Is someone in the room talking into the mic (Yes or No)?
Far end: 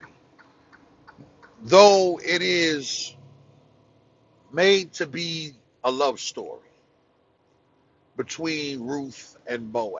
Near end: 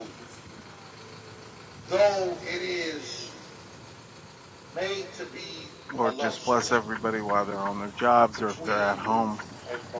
Yes